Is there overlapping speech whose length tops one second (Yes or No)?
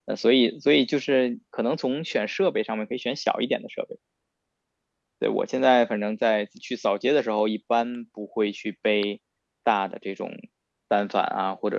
No